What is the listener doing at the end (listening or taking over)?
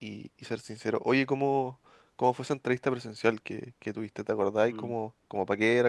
listening